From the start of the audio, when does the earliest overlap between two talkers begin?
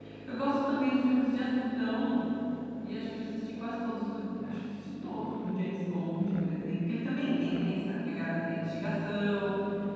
none

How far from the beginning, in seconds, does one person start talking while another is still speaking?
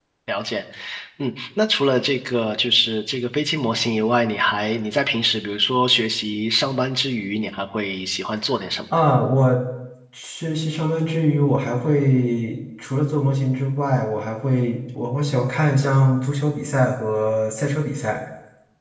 none

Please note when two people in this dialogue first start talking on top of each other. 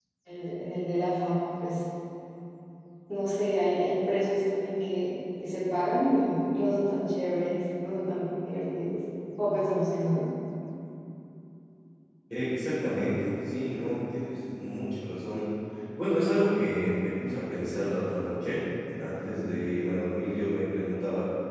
none

